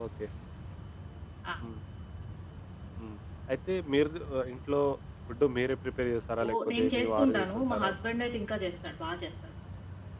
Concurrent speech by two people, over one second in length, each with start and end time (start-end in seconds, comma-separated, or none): 6.5-7.9